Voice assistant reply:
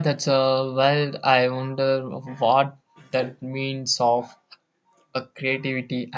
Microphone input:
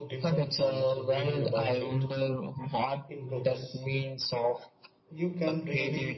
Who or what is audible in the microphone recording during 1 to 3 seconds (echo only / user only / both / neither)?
both